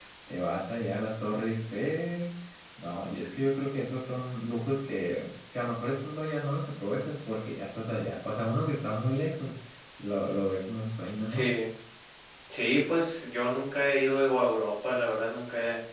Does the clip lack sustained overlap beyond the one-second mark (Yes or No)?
Yes